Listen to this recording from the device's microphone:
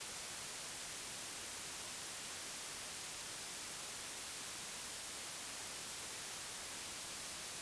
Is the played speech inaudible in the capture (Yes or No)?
Yes